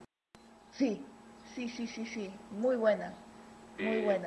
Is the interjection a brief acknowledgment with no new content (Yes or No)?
Yes